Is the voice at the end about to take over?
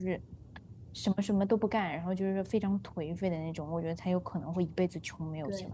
No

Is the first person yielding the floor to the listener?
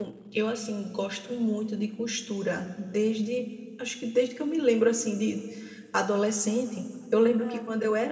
No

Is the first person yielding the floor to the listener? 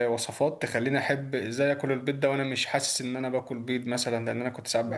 Yes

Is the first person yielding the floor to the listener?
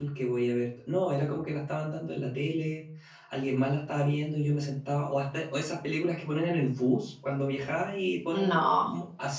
No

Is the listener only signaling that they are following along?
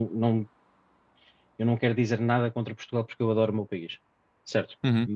Yes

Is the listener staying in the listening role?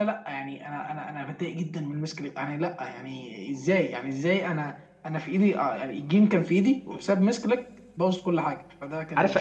No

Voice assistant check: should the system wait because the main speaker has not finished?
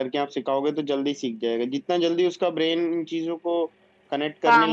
Yes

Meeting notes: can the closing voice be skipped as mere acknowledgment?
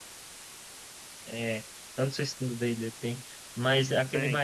No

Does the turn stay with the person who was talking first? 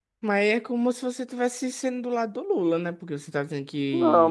No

